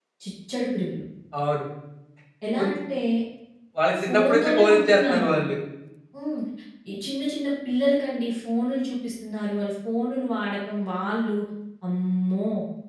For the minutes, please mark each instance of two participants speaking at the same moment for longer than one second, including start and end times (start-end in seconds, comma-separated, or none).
4.0-5.3